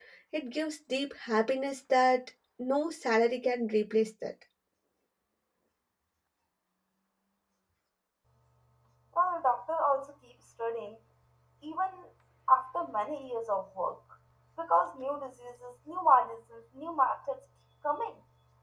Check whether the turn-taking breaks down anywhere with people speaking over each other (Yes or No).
No